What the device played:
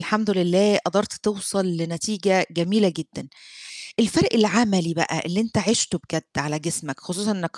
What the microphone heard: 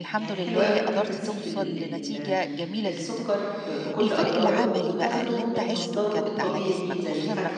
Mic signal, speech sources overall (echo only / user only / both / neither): both